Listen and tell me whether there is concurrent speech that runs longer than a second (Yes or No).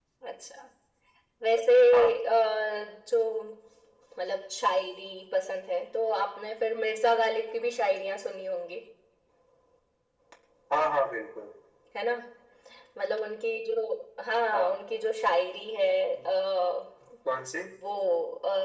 No